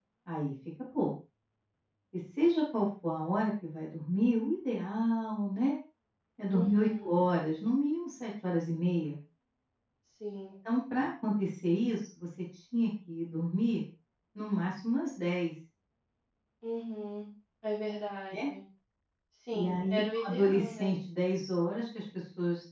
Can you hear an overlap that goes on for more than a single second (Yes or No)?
Yes